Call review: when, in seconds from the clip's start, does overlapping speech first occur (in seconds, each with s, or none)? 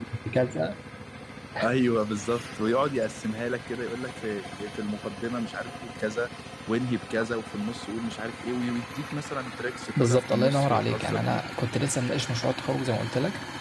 10.0 s